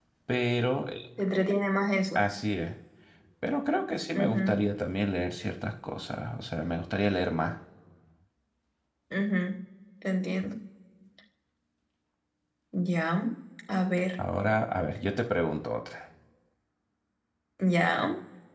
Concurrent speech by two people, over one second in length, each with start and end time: none

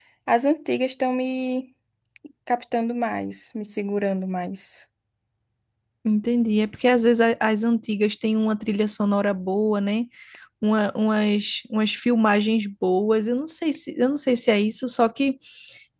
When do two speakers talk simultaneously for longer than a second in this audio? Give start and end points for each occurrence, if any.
none

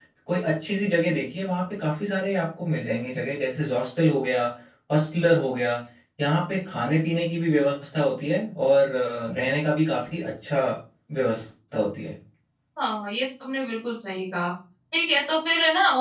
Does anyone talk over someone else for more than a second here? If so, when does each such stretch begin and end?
none

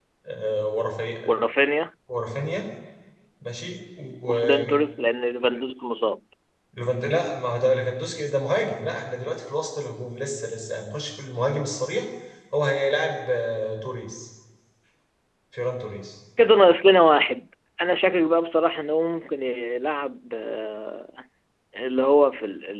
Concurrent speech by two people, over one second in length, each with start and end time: none

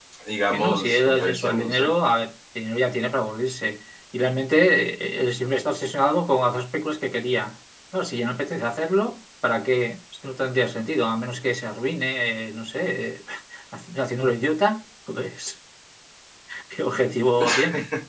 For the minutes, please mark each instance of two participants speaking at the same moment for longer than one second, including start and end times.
0.5-1.9

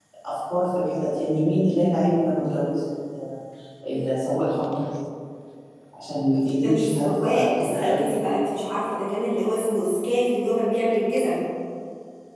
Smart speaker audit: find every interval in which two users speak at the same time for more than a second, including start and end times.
6.6-8.1

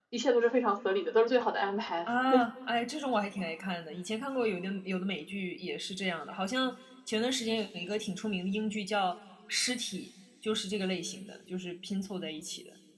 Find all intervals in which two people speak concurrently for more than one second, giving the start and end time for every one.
none

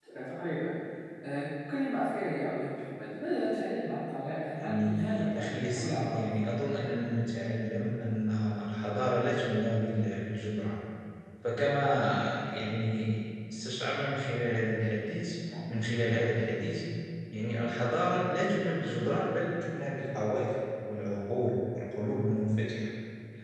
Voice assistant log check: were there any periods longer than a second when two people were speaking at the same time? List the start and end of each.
4.6-6.3

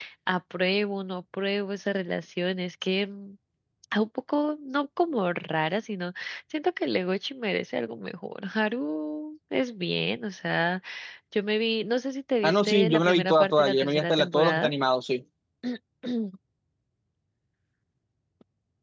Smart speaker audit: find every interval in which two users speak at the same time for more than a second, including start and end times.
12.4-14.7

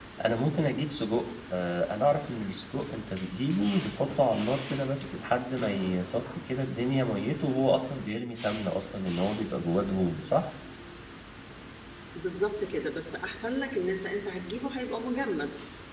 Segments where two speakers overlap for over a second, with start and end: none

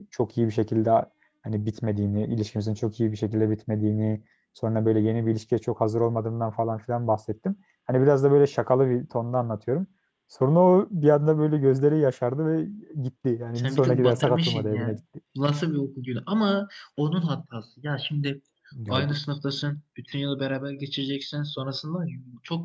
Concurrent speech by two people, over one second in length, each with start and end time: 13.6-15.0

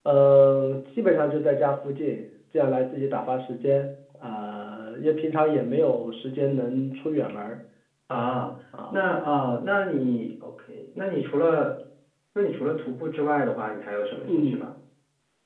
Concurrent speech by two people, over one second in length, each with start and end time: none

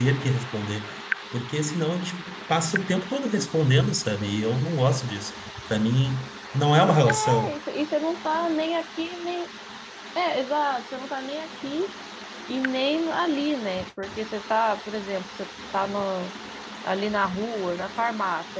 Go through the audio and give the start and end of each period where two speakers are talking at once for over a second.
none

